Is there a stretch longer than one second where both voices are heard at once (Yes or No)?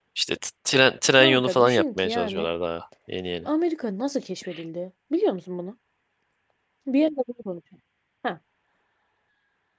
Yes